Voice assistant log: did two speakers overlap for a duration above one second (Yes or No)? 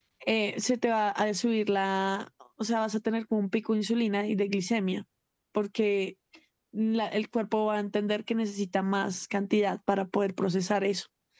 No